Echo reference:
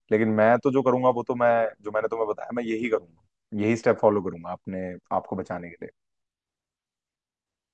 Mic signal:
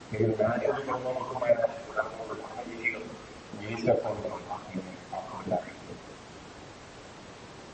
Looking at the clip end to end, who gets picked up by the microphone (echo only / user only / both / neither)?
echo only